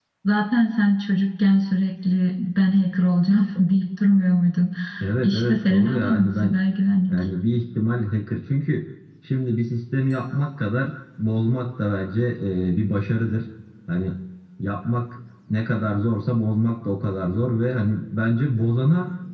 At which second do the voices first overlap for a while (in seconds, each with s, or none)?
5.2 s